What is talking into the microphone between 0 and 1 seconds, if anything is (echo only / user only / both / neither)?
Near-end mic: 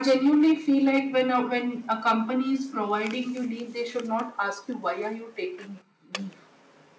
echo only